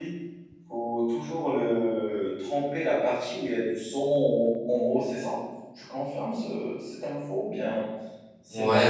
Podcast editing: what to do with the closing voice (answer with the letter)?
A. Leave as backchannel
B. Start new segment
B